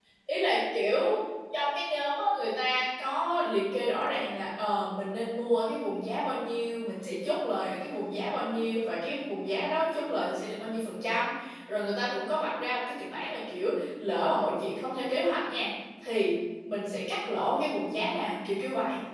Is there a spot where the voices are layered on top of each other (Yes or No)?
No